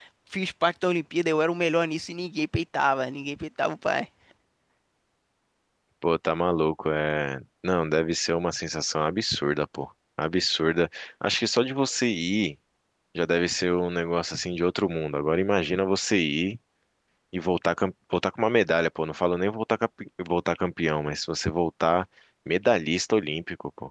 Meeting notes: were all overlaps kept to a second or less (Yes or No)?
Yes